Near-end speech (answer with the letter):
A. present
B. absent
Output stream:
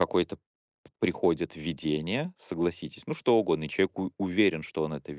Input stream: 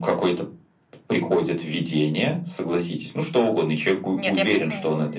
A